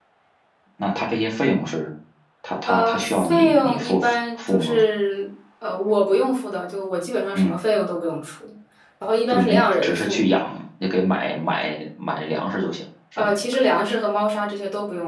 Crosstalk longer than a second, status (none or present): present